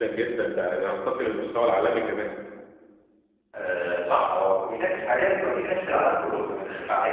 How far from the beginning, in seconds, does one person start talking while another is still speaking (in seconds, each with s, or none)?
none